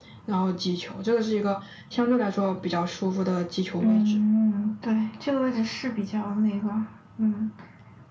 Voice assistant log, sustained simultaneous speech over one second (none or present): none